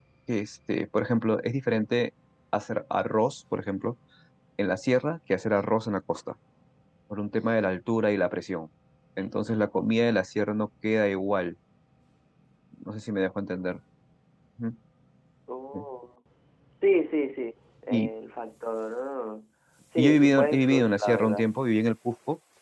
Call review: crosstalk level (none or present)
present